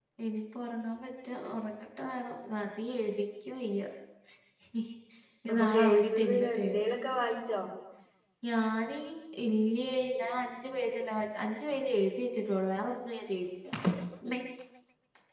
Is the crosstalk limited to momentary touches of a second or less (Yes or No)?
No